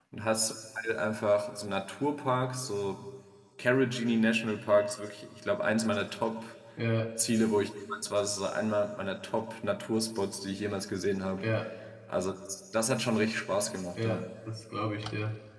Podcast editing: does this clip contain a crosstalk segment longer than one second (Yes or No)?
No